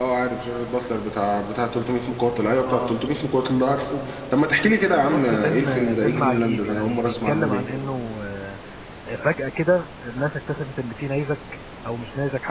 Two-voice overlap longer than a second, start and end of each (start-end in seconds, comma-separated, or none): 5.1-7.6